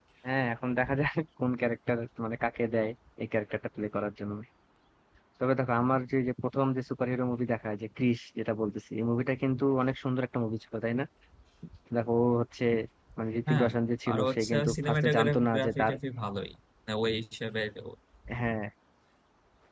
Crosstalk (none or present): present